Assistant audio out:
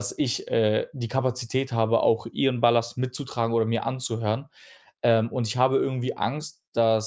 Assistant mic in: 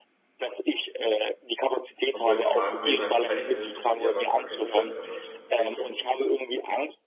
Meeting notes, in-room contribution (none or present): present